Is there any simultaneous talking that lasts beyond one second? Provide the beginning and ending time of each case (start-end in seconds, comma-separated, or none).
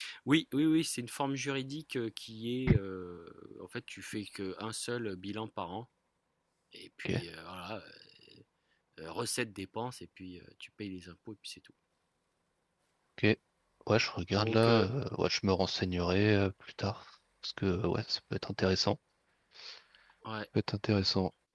none